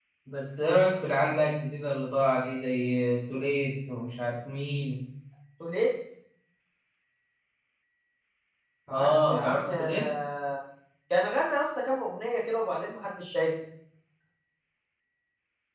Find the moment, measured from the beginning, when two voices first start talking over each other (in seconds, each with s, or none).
8.9 s